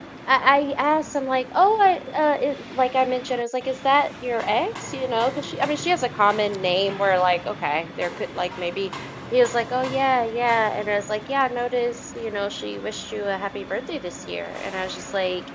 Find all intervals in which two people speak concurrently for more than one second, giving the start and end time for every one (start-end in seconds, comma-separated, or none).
none